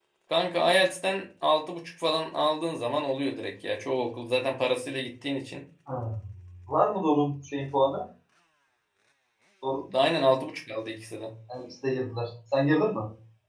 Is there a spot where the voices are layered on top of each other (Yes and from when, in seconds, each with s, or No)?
No